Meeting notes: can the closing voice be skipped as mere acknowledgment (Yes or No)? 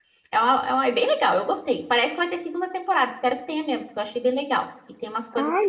No